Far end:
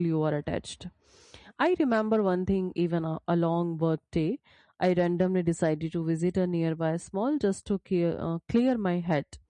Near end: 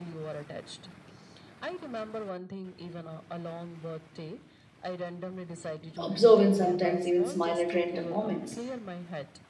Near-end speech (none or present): present